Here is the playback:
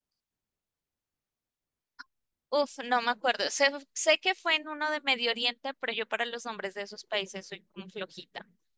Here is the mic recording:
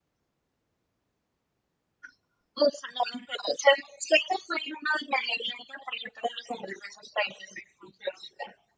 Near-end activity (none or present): none